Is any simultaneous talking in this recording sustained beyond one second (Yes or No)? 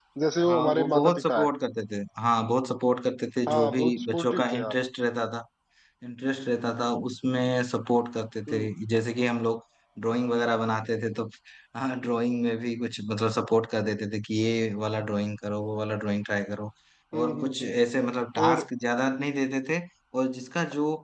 Yes